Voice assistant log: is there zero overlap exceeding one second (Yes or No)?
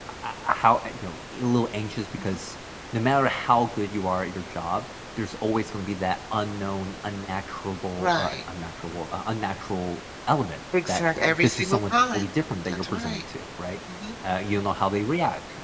No